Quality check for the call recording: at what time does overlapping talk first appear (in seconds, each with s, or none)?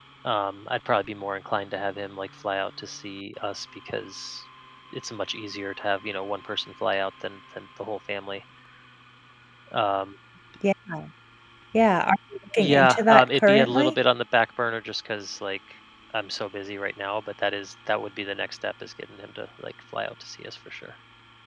12.6 s